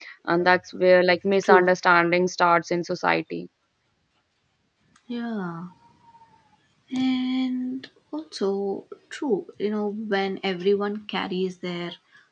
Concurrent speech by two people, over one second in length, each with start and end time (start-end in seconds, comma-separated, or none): none